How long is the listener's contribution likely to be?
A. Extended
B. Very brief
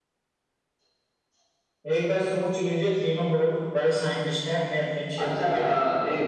A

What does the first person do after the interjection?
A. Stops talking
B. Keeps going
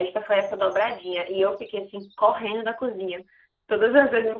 B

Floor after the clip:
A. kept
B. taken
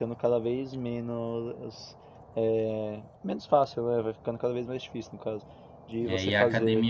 B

